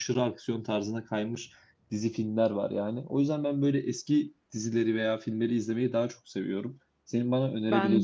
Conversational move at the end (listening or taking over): listening